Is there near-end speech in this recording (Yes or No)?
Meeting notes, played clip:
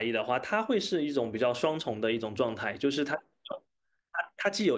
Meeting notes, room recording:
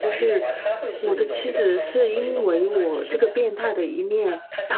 Yes